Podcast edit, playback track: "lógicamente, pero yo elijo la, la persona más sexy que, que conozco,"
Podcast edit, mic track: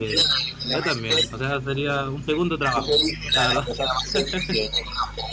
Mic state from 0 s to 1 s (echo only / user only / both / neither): both